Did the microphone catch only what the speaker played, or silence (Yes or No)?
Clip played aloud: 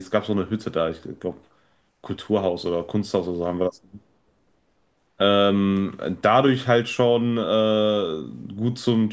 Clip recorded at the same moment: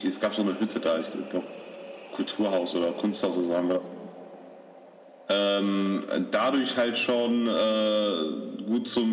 Yes